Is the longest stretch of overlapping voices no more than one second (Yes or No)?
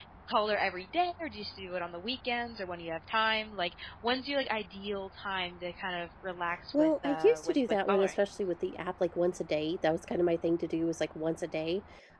No